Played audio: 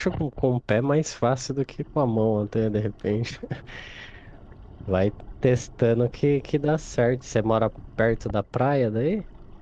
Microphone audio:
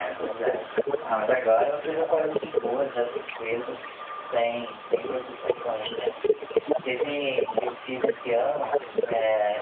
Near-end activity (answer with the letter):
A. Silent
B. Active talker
B